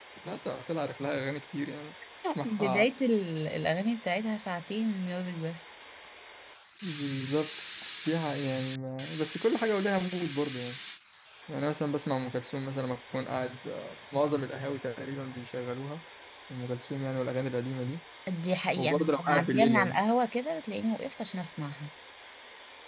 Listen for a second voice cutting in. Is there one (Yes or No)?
Yes